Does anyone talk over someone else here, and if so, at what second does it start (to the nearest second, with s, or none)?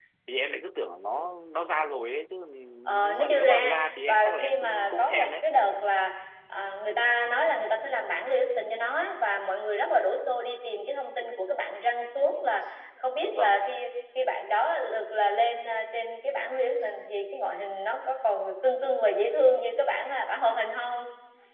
3 s